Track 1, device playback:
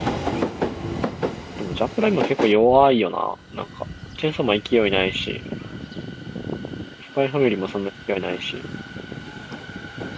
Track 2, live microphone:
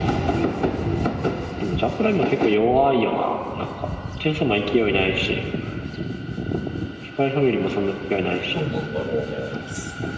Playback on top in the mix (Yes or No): Yes